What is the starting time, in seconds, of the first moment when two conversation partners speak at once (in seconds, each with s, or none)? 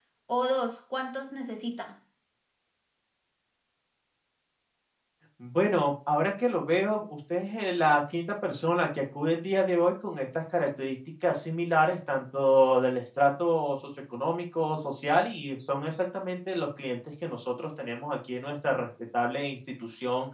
none